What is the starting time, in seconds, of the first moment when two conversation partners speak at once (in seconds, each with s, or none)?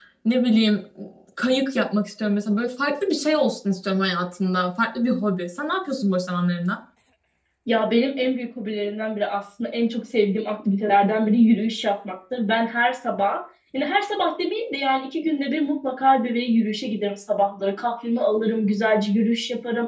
none